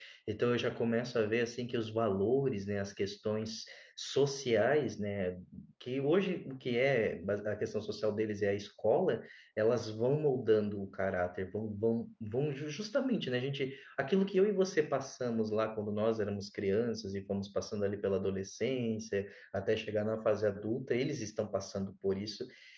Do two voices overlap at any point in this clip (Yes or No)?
No